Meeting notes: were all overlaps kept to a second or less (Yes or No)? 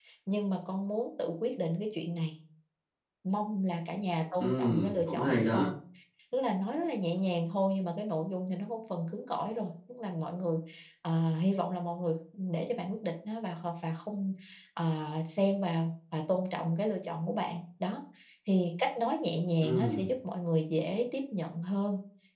No